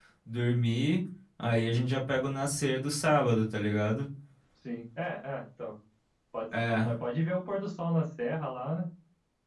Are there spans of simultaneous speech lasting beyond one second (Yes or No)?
No